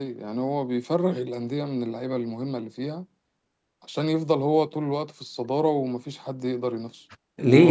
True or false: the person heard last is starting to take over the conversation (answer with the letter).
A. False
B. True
B